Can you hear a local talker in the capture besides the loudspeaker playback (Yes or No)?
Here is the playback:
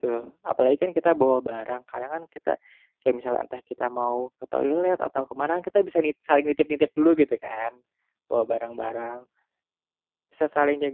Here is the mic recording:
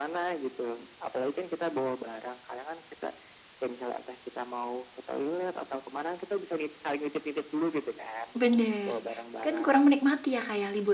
Yes